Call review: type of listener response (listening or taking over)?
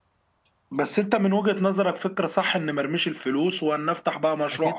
taking over